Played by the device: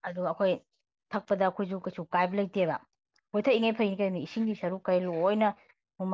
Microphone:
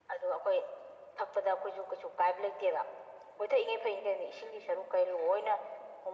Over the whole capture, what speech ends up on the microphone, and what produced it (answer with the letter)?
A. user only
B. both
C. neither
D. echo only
D